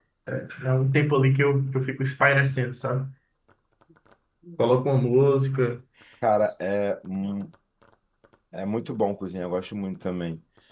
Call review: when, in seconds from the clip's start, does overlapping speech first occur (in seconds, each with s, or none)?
none